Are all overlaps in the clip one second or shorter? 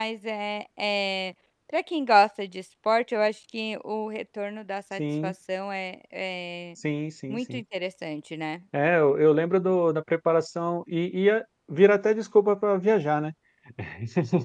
Yes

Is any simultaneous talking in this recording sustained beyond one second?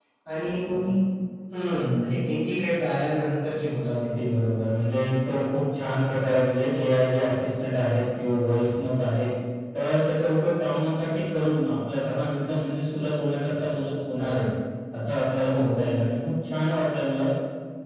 No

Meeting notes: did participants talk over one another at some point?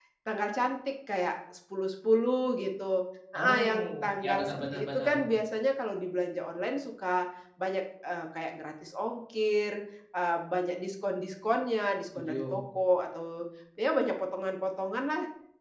Yes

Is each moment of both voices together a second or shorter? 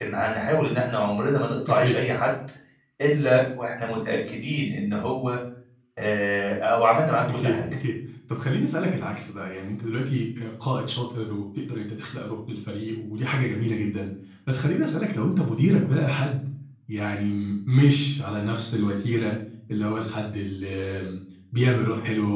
Yes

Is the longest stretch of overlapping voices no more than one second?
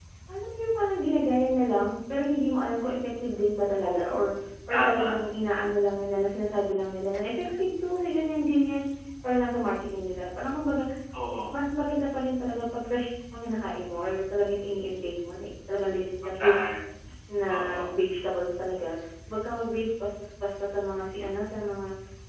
Yes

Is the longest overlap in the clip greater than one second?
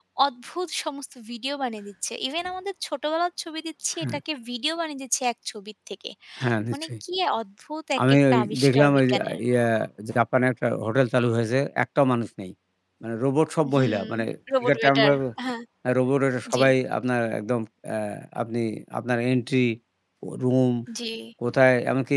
Yes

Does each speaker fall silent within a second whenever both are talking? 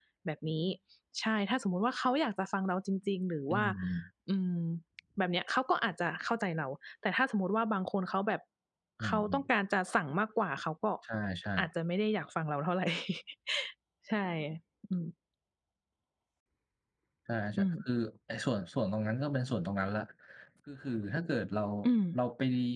Yes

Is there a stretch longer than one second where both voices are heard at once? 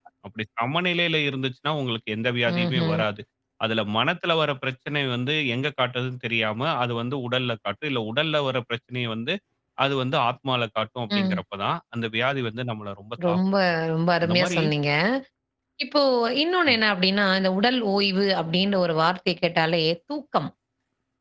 No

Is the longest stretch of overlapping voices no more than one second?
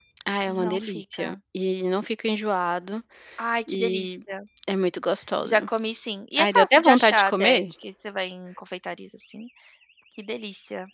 No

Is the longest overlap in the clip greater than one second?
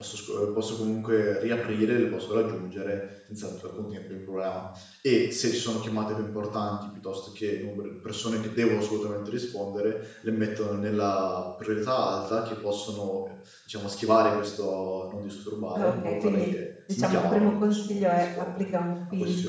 Yes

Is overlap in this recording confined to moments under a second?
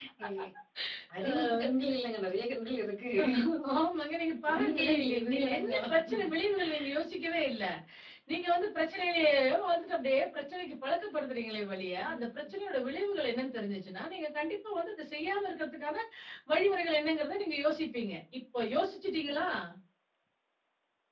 No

